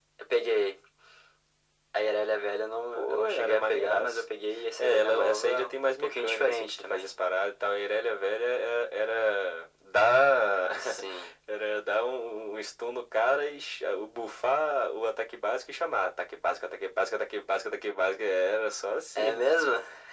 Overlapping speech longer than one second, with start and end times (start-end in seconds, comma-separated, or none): 2.9-4.2, 4.8-7.1